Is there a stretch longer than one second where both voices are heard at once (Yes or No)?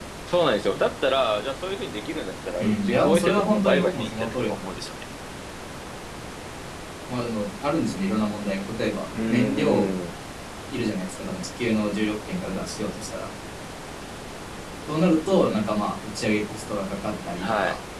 Yes